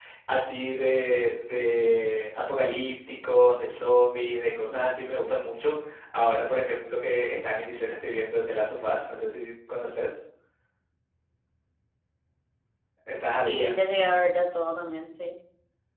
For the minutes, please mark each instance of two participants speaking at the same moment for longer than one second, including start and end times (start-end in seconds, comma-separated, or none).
none